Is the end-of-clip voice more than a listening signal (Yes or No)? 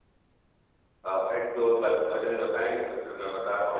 Yes